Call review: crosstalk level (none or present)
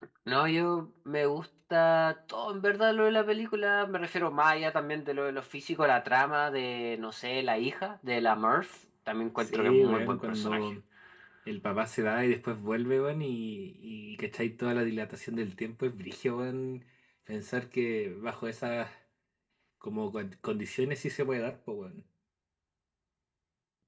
present